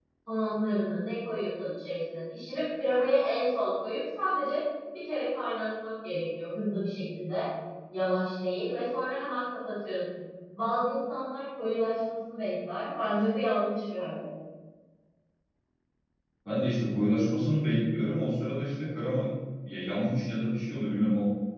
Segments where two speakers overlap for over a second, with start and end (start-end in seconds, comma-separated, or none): none